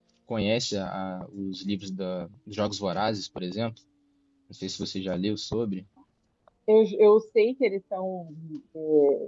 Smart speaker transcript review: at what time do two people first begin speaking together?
none

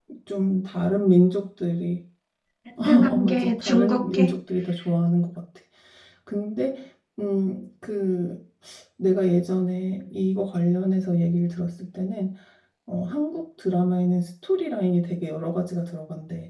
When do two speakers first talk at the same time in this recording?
3 s

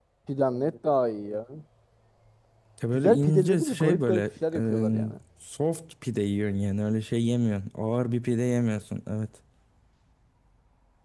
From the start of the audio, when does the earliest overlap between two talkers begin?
3 s

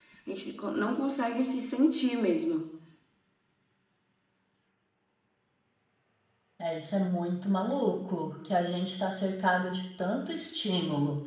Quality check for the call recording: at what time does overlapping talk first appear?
none

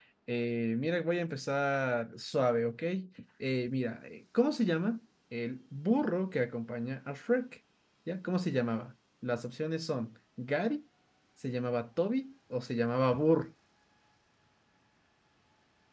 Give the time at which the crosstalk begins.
none

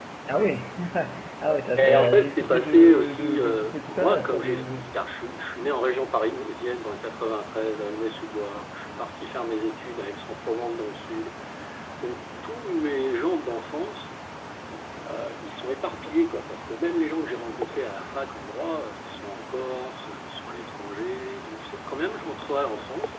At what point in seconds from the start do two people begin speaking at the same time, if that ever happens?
2 s

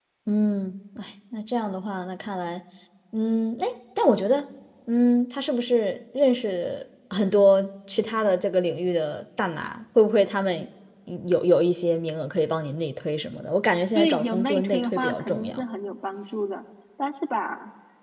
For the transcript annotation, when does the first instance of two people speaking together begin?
14 s

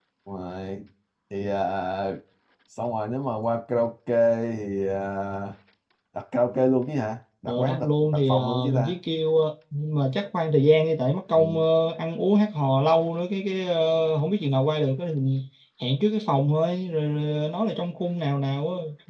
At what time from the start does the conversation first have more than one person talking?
7 s

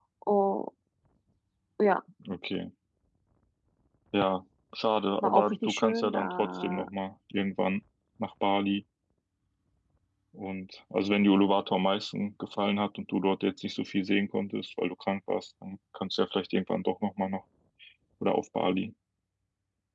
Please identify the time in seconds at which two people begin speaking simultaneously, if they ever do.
5 s

